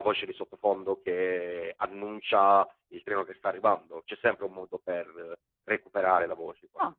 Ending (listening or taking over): taking over